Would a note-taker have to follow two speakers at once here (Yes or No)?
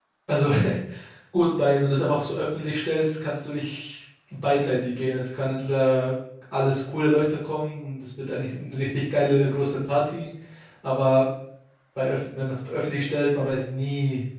No